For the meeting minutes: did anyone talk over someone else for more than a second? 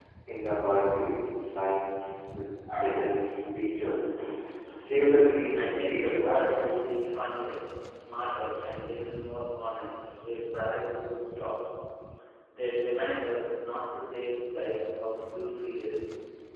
Yes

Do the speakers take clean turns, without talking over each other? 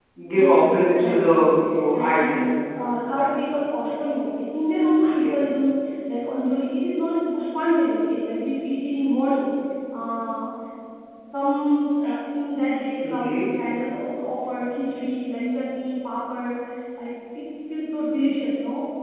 No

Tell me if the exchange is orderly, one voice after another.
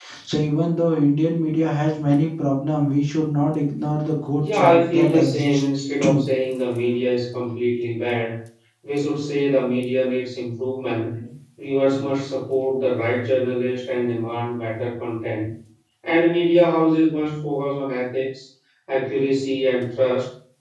No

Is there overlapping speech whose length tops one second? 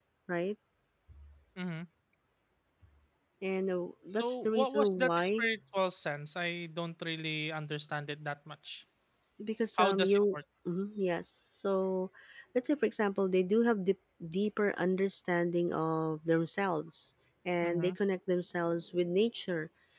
Yes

